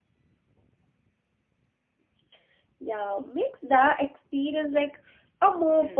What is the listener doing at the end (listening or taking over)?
taking over